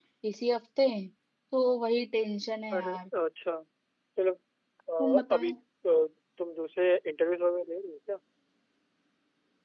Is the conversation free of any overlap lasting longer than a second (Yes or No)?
Yes